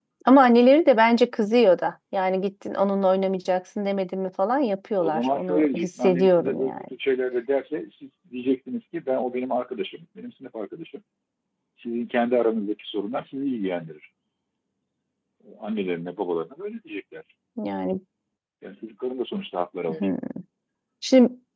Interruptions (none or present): present